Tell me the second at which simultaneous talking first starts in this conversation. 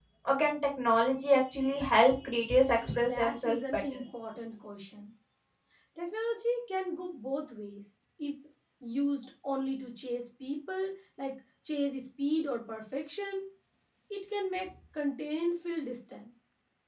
2.8 s

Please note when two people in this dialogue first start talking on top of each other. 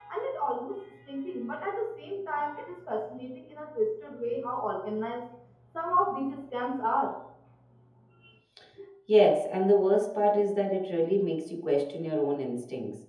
none

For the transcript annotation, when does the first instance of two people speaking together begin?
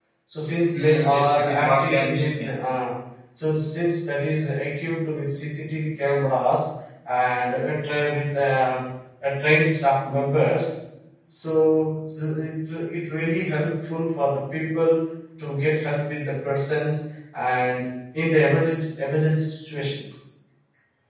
0.8 s

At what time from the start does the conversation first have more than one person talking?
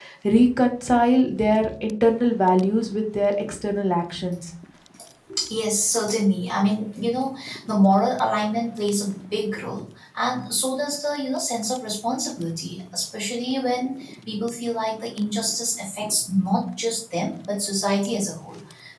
none

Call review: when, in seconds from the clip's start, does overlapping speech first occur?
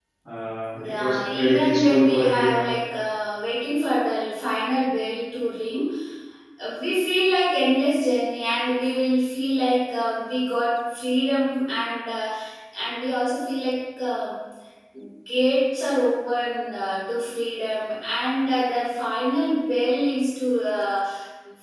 0.9 s

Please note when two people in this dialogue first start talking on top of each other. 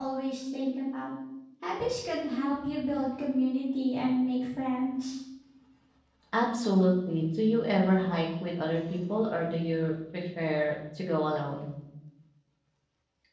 none

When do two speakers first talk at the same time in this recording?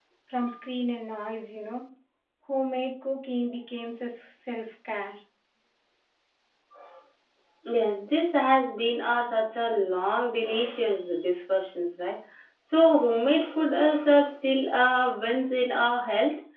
none

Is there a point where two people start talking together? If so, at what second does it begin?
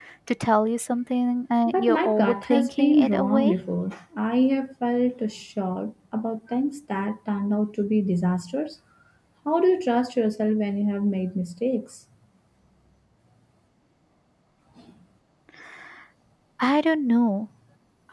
1.7 s

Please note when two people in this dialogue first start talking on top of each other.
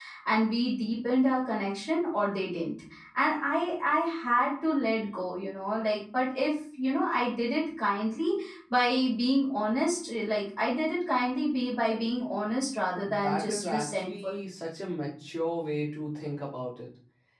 13.0 s

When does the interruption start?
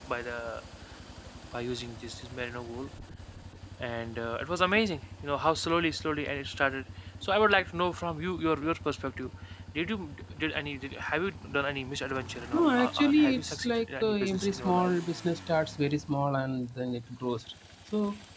12.5 s

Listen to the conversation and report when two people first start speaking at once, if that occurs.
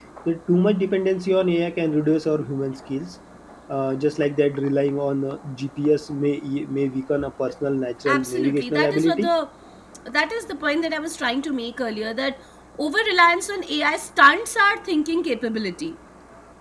8.1 s

